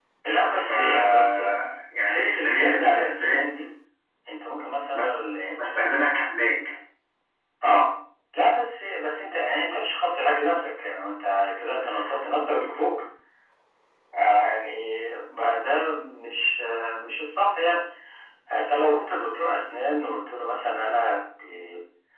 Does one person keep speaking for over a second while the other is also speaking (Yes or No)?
Yes